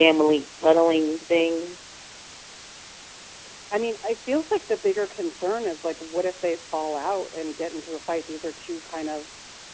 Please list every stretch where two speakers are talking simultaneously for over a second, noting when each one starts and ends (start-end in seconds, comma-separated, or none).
none